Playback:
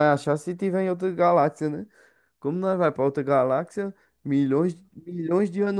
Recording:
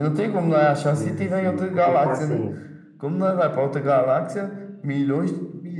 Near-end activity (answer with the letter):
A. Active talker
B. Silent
A